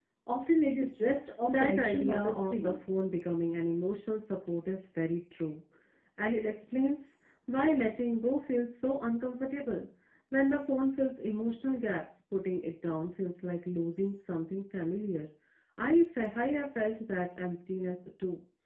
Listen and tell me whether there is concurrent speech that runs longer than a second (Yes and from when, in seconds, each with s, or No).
Yes, from 1.5 s